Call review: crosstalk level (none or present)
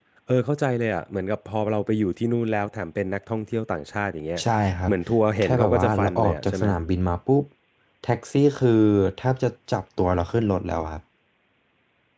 present